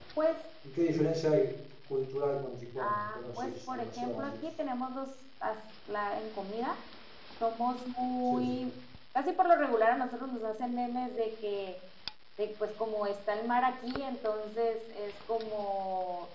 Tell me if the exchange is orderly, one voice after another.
No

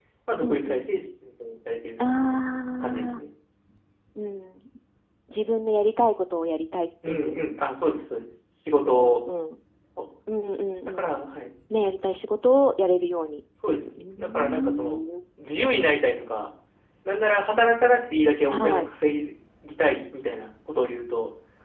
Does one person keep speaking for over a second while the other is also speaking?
Yes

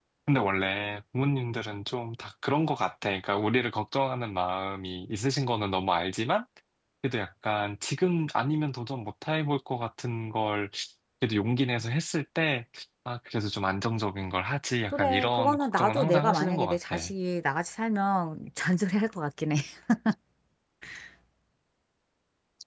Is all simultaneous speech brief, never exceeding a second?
No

